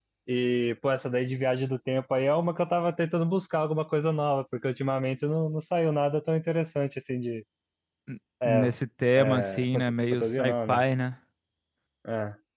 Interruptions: present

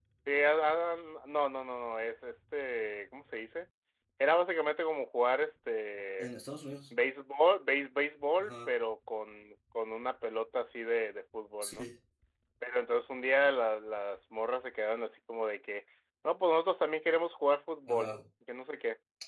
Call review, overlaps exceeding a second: none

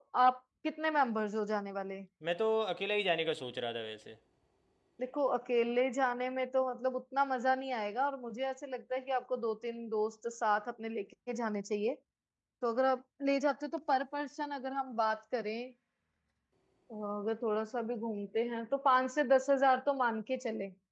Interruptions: none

